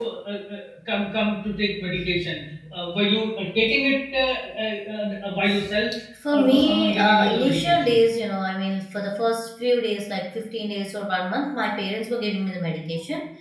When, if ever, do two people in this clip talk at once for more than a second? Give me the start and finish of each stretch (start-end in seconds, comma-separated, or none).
6.3-8.0